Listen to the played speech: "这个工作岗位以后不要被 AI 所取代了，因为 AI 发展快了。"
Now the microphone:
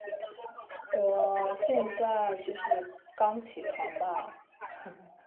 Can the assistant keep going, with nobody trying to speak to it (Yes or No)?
No